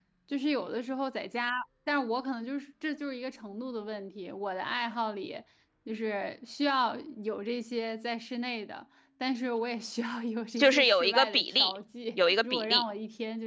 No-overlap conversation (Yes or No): No